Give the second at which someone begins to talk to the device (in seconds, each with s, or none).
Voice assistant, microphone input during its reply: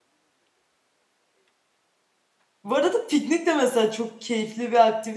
2.6 s